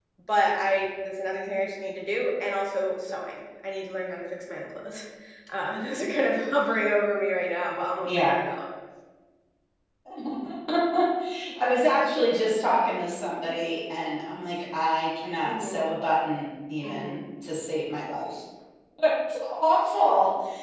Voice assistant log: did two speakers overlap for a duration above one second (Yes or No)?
No